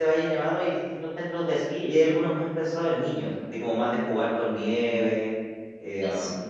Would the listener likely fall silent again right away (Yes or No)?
Yes